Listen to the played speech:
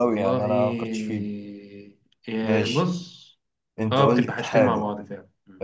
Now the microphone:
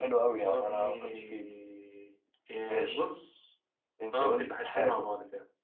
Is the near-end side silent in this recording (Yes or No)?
Yes